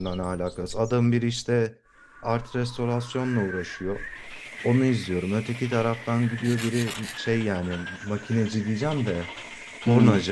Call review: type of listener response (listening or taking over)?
listening